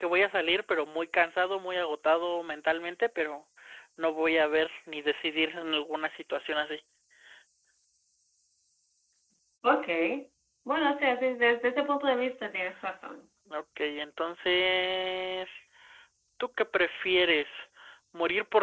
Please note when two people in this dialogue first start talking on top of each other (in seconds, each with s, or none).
none